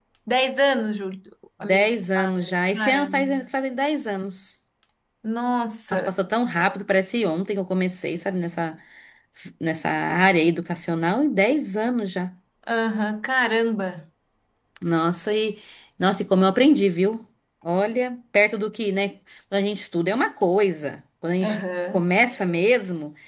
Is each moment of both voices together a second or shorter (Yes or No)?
No